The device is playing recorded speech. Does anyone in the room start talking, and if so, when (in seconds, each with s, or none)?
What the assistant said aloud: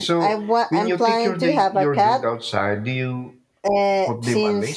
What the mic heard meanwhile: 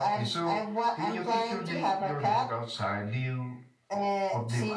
none